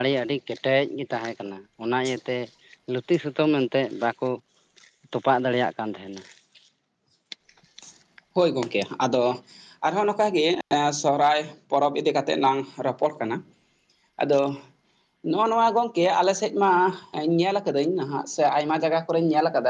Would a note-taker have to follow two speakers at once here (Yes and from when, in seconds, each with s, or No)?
No